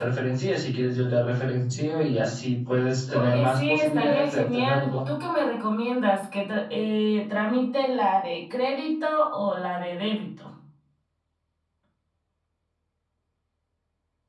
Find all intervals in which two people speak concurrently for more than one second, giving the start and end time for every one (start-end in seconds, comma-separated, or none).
3.1-4.9